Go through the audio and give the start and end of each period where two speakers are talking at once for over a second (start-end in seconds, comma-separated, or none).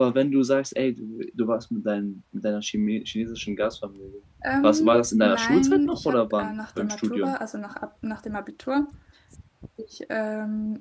4.6-7.3